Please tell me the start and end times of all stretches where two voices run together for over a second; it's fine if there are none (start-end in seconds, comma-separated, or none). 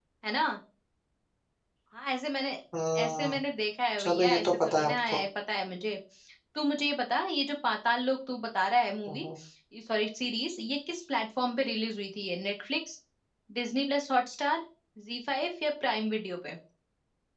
4.0-5.2